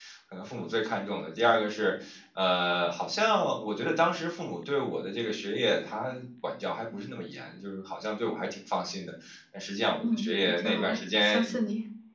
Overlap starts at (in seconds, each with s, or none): 10.0 s